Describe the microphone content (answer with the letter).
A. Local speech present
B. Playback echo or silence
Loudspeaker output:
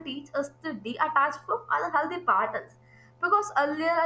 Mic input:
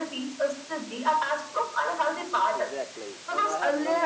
A